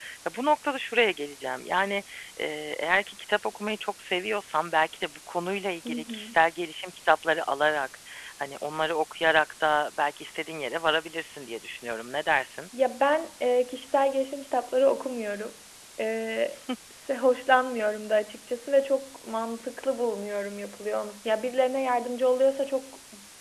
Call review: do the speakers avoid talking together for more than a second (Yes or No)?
Yes